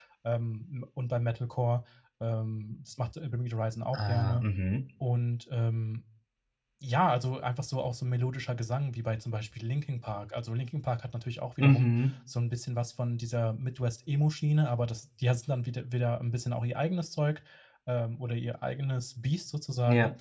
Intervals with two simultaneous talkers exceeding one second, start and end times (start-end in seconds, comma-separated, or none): none